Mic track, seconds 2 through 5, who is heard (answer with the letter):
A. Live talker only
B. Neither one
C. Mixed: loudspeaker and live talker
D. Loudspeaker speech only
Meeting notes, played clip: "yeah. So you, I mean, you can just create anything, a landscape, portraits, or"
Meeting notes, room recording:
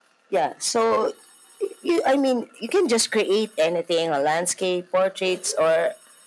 D